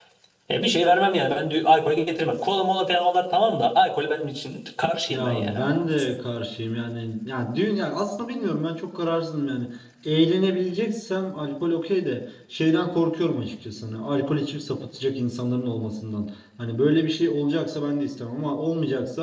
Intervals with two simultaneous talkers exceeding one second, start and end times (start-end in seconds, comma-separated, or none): none